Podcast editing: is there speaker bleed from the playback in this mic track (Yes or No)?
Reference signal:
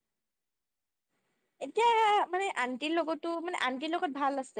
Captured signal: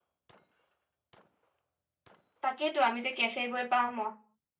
No